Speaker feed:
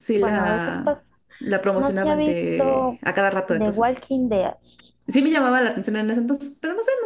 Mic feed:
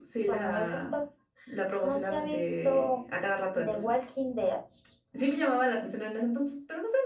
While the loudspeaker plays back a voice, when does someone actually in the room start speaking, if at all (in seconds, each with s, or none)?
none